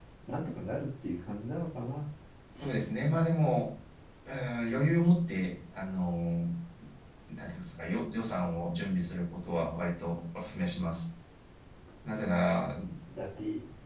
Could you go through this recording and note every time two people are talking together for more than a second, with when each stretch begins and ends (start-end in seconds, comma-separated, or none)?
none